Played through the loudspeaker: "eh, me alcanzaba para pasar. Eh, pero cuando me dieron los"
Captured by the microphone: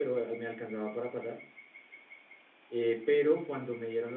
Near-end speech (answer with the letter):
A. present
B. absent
B